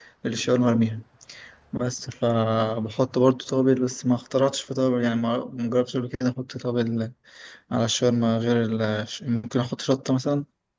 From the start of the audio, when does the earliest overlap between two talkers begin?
none

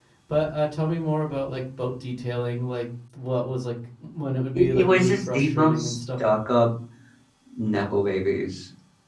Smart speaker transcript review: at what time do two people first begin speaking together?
4.5 s

